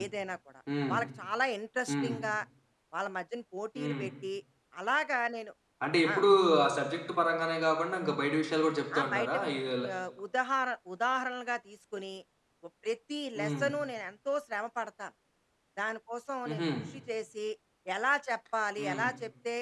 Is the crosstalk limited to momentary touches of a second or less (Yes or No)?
Yes